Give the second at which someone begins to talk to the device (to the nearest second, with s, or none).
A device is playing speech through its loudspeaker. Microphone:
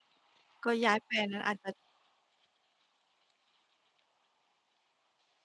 1 s